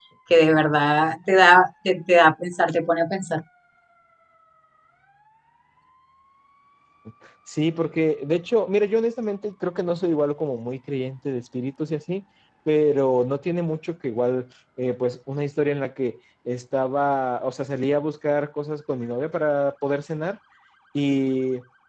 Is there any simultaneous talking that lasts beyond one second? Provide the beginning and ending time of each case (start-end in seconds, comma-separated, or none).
none